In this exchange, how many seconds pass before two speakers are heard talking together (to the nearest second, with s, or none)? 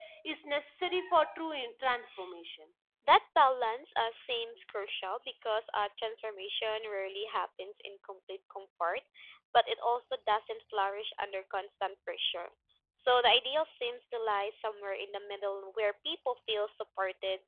none